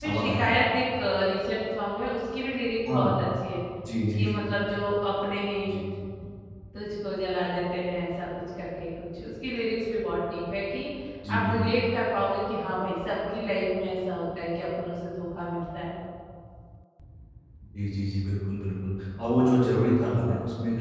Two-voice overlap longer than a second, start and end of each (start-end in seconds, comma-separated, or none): none